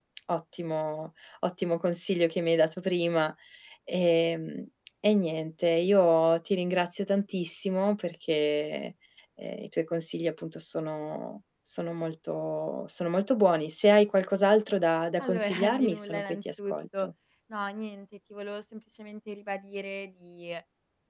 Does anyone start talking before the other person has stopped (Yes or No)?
Yes